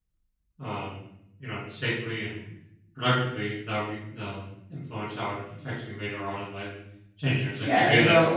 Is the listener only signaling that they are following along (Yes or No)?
No